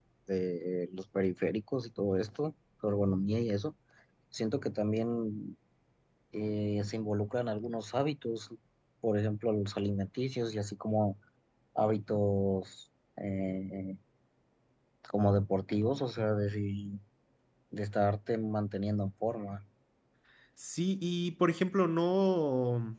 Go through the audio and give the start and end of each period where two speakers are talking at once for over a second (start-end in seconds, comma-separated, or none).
none